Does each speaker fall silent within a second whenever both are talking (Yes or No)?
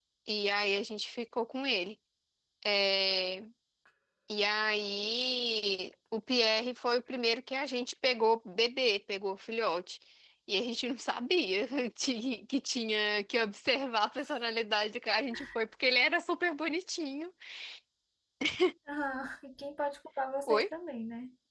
Yes